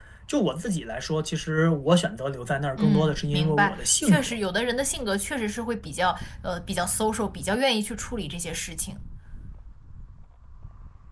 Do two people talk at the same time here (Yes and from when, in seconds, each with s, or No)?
Yes, from 2.8 s